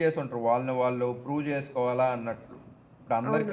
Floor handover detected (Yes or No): Yes